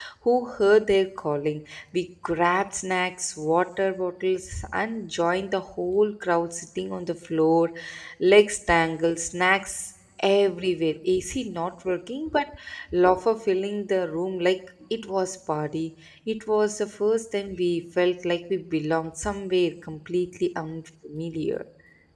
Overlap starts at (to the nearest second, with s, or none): none